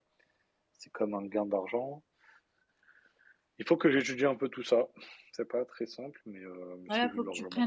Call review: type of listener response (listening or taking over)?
taking over